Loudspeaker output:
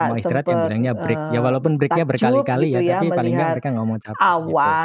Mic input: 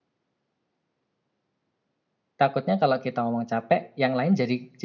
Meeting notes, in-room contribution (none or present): present